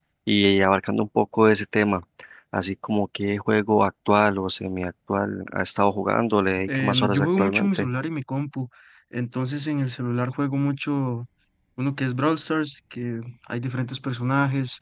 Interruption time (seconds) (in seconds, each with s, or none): 6.7 s